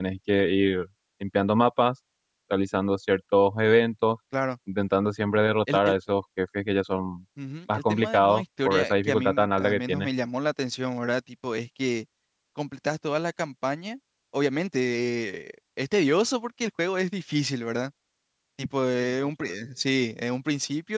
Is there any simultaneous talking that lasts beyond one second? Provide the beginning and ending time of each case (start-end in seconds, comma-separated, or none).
7.7-10.1